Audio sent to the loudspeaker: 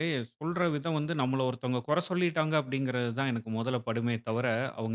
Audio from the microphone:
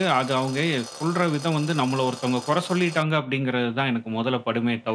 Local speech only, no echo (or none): none